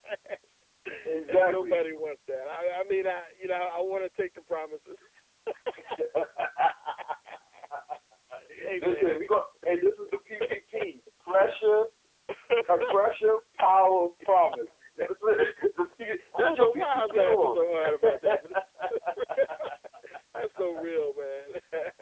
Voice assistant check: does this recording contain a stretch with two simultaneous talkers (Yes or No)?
Yes